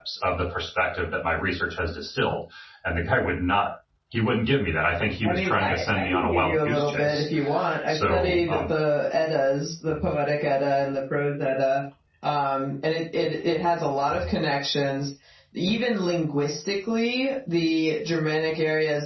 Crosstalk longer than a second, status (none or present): present